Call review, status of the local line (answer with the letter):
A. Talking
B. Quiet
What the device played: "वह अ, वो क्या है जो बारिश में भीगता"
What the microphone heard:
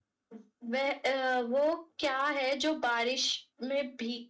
B